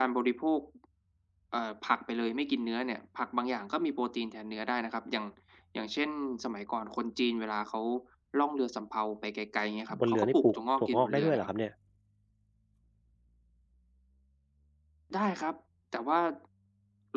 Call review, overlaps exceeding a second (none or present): present